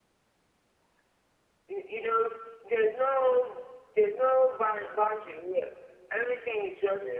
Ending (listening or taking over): listening